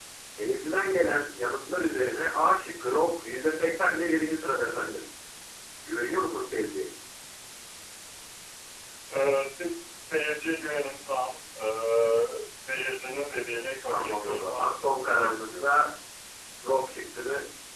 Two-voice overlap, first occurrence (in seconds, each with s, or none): 13.9 s